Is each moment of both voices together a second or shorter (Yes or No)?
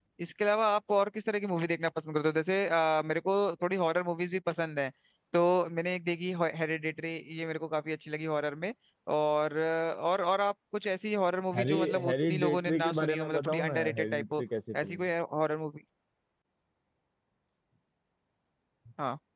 No